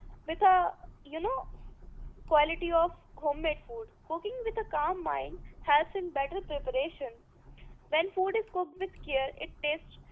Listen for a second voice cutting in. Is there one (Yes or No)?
No